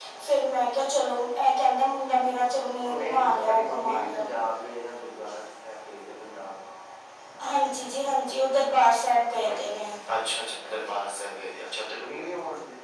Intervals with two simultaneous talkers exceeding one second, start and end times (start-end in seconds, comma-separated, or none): 2.9-4.2